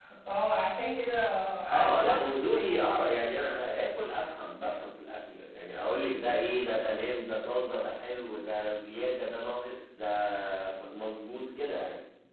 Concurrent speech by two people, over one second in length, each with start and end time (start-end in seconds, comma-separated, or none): 1.7-2.9